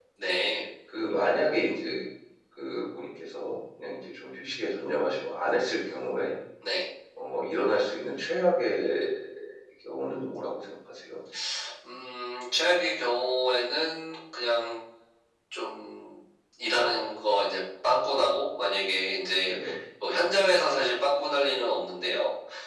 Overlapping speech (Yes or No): No